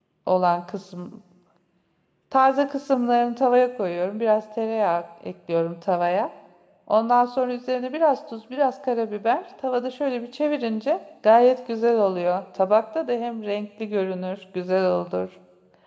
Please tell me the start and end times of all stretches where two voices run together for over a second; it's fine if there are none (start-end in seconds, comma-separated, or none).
none